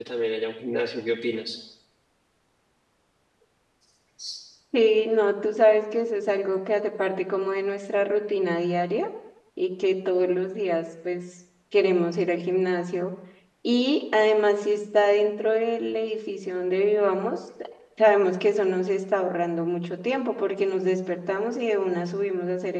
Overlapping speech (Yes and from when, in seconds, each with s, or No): No